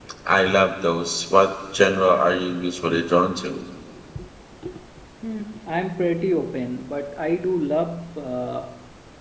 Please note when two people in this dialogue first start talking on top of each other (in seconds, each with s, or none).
none